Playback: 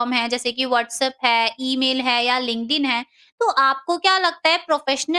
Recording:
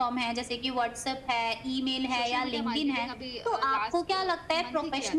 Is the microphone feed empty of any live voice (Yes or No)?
No